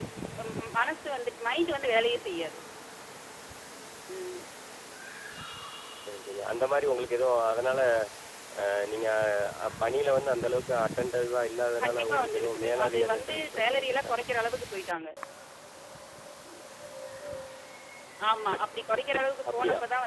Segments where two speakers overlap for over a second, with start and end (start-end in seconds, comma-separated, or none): 11.8-14.2